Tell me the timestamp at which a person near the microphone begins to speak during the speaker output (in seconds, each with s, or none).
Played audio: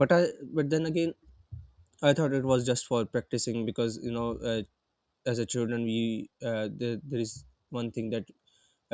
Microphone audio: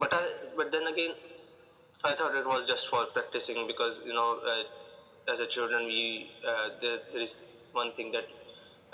none